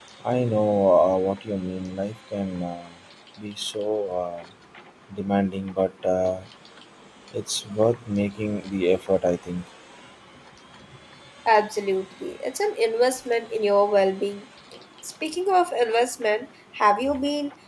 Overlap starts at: none

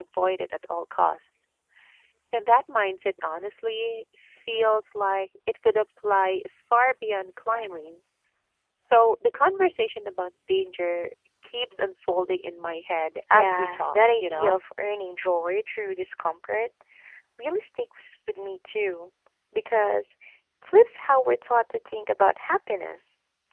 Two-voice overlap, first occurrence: 13.3 s

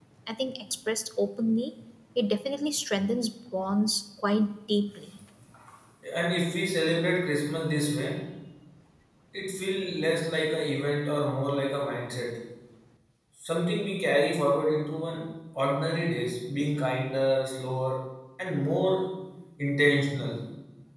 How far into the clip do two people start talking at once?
none

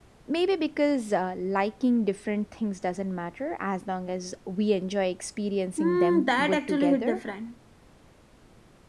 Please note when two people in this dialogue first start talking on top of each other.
5.8 s

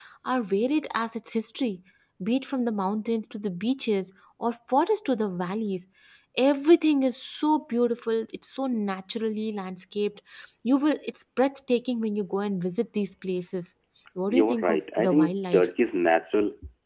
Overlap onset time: 14.3 s

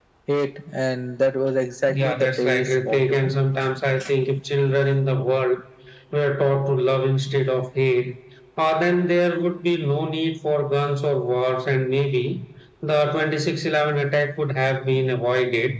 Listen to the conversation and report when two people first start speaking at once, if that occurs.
1.9 s

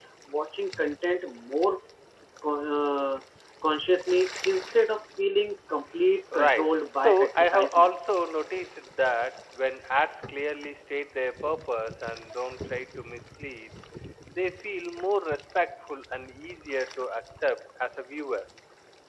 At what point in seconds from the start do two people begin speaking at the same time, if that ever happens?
6.3 s

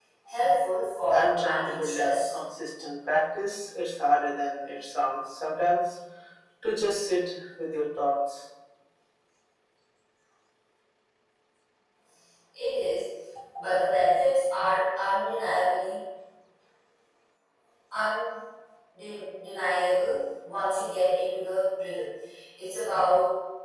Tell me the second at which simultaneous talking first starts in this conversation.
1.1 s

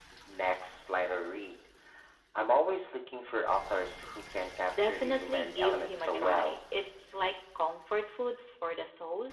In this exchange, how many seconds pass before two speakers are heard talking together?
4.7 s

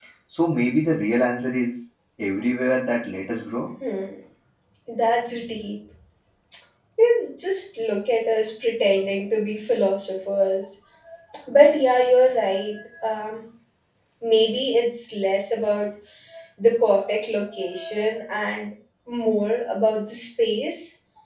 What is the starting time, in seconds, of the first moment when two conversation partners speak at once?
none

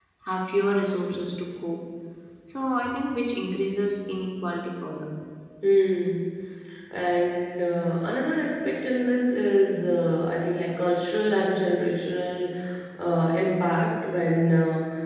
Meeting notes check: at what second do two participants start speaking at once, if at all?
none

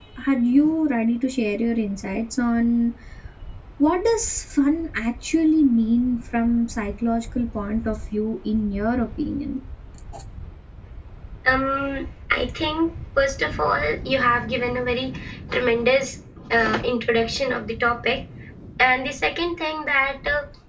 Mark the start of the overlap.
none

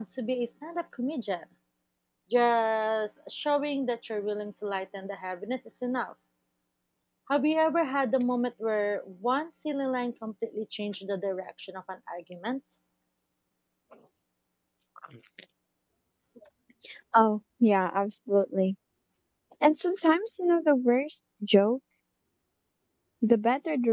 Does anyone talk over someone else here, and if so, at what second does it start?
none

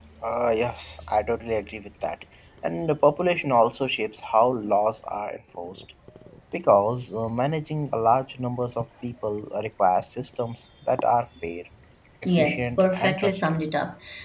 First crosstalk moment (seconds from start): 12.4 s

